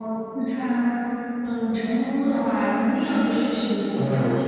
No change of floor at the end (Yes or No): No